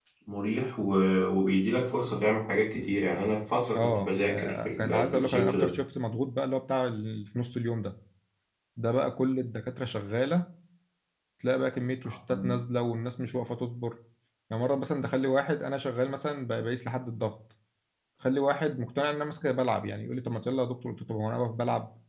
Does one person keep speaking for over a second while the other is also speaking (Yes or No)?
Yes